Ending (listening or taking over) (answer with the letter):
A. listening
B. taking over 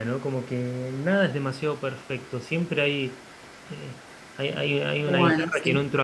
A